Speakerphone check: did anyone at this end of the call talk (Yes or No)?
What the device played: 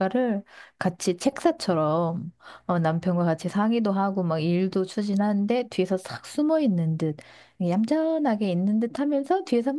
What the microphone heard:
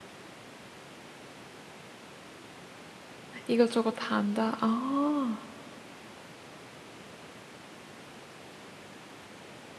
Yes